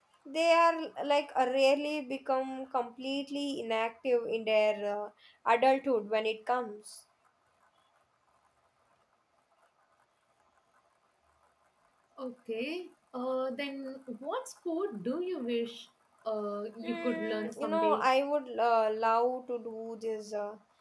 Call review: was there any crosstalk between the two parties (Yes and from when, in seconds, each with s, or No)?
Yes, from 16.8 s